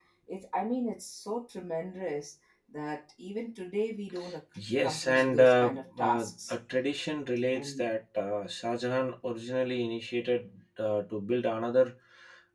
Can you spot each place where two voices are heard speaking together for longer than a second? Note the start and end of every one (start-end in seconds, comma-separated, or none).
4.8-6.5